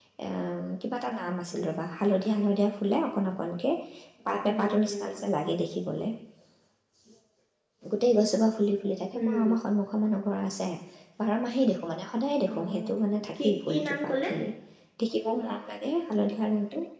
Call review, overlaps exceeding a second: present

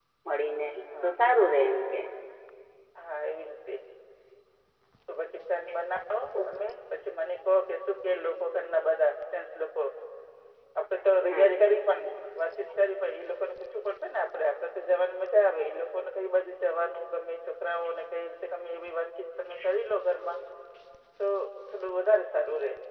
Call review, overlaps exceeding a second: none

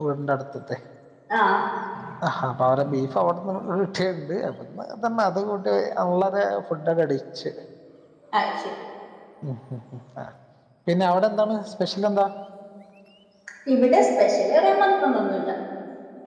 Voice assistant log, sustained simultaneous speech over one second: none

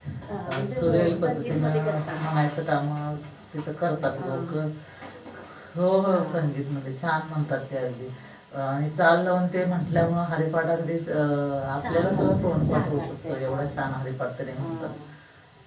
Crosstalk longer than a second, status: present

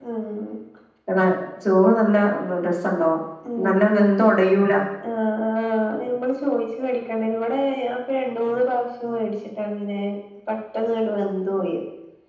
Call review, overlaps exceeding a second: none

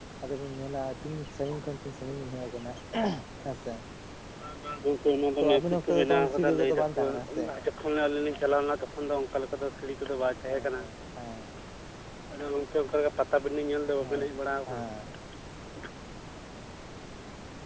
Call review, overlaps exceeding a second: present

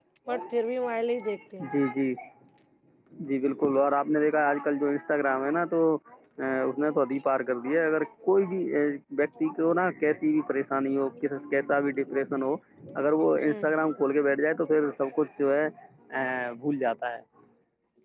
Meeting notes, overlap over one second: none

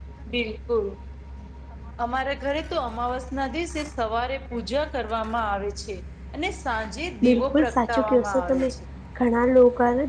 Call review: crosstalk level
present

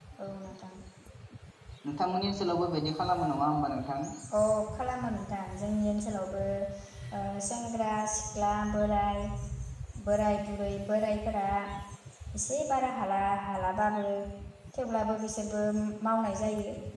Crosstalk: none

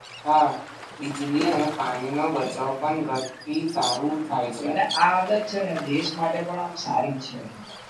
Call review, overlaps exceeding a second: none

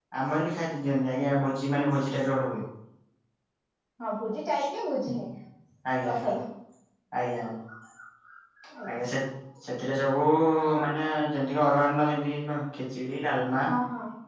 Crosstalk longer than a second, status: none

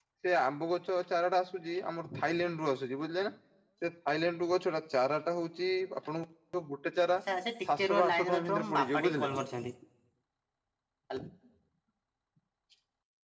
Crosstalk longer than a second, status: present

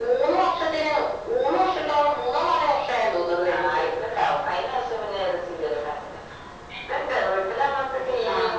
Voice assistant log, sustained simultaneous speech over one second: none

